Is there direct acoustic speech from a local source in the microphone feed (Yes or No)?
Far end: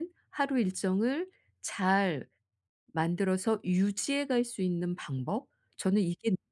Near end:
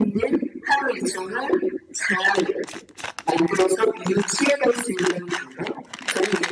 No